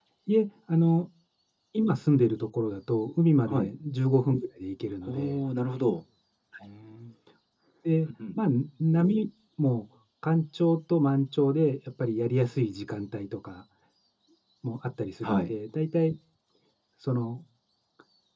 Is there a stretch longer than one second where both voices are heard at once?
No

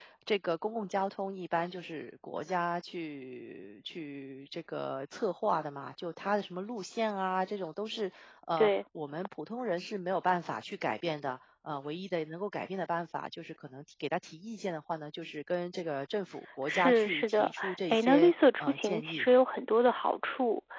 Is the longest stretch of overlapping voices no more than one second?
No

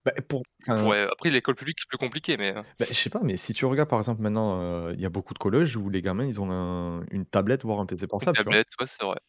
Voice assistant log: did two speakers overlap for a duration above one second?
No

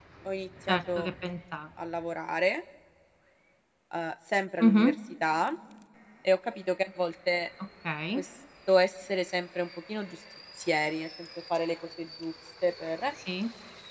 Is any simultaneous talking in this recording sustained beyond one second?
No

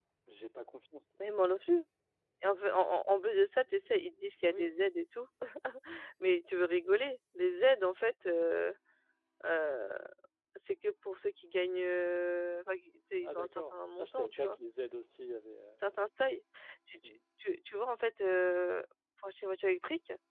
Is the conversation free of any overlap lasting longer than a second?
No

